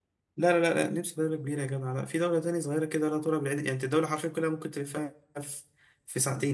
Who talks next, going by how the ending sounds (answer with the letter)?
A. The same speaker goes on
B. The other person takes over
A